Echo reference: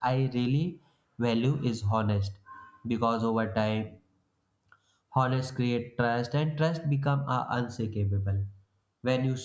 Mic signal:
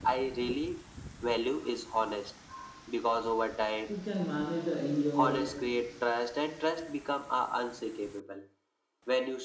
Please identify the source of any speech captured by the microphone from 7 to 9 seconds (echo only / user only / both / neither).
echo only